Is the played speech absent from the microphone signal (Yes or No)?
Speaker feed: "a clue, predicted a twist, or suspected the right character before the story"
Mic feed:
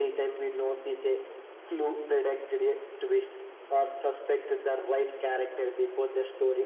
No